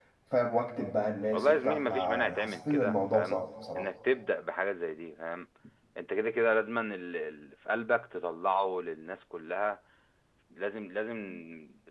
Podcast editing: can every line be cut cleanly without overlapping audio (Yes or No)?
No